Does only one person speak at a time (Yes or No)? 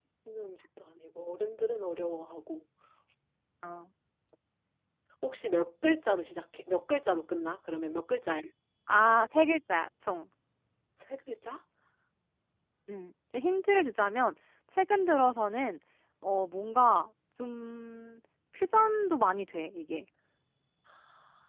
Yes